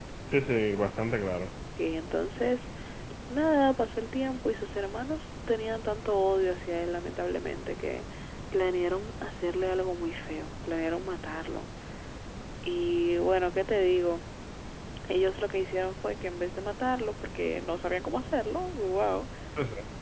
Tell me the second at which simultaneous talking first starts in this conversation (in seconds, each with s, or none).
none